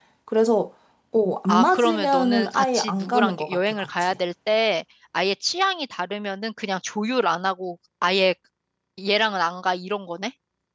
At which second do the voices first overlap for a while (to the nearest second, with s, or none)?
1 s